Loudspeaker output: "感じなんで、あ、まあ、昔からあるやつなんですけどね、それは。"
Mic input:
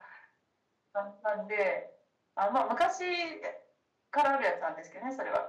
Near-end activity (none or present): none